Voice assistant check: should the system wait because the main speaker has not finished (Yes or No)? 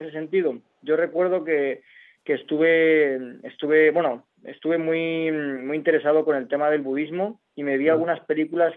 Yes